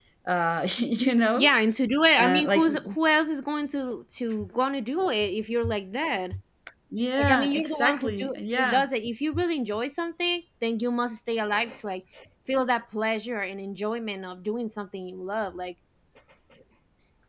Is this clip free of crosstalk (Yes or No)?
No